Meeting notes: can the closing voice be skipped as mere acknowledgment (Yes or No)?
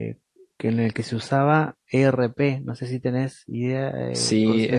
No